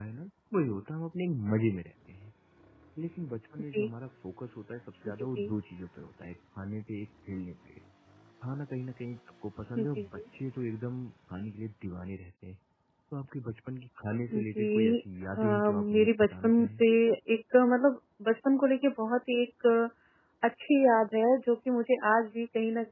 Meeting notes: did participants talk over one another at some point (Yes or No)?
Yes